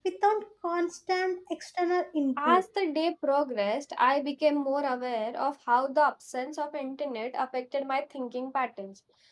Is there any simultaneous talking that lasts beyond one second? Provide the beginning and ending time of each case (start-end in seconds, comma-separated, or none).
none